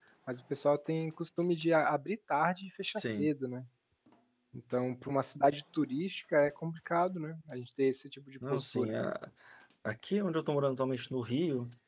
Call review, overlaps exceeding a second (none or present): none